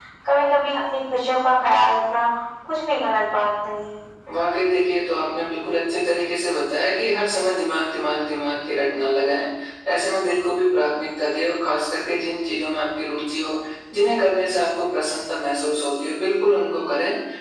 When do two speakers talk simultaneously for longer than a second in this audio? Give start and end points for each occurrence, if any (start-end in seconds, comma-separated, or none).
none